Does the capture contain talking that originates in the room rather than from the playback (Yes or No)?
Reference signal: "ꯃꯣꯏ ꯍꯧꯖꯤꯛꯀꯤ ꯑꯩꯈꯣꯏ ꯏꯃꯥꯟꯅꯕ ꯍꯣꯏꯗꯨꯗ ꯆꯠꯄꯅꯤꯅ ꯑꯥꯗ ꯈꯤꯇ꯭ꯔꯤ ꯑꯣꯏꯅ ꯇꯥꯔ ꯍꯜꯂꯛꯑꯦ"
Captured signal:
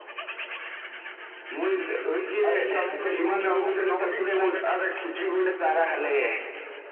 Yes